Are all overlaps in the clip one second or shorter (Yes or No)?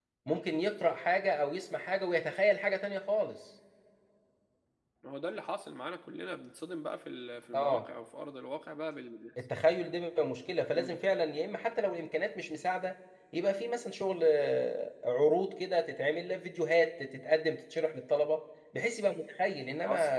Yes